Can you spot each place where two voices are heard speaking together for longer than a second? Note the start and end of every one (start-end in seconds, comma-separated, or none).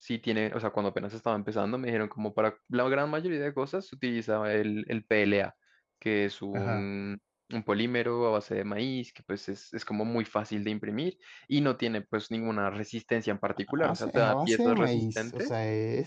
13.7-15.5